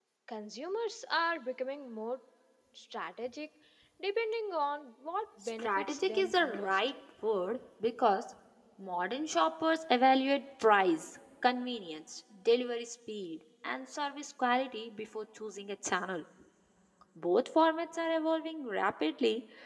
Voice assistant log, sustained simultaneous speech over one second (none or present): present